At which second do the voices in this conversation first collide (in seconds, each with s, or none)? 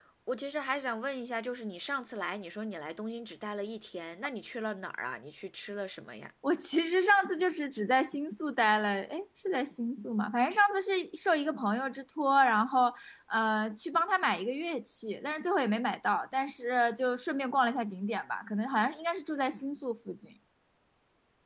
none